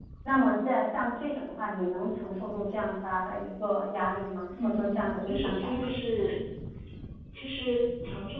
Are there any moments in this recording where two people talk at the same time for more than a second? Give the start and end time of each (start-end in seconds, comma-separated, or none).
4.6-5.9